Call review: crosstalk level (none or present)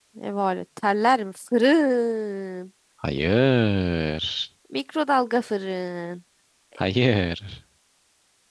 none